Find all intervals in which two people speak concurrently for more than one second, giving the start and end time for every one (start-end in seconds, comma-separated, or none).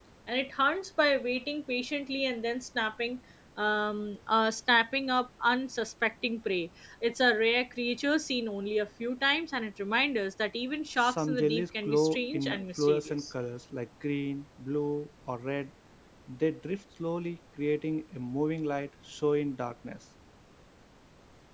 11.0-13.2